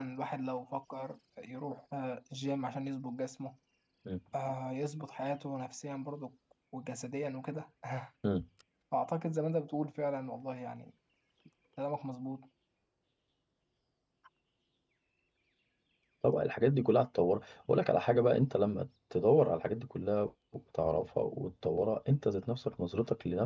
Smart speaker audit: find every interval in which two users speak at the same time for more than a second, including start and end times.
none

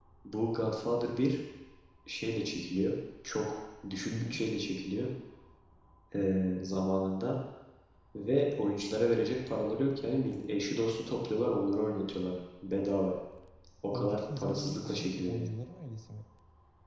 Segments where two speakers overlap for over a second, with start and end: 13.9-15.5

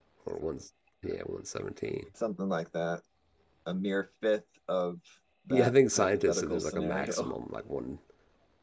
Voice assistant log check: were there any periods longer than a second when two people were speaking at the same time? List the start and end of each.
5.5-7.3

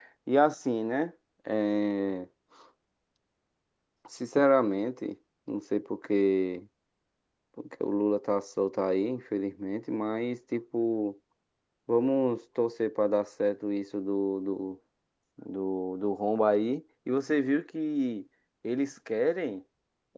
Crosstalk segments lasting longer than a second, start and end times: none

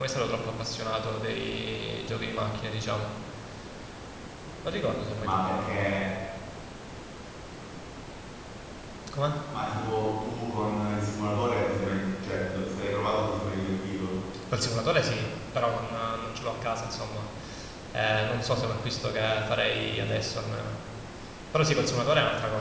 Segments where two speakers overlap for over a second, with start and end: 4.6-6.0

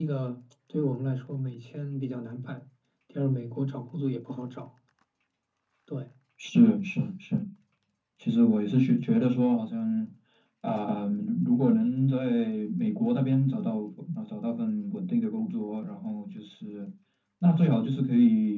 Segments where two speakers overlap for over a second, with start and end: none

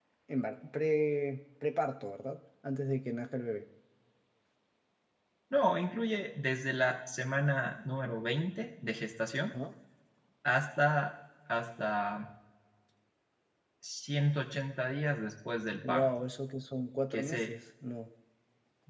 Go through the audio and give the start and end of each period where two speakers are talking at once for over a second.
none

